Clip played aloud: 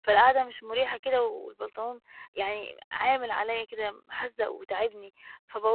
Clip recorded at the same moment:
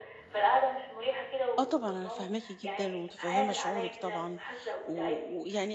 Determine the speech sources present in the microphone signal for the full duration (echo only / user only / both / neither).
both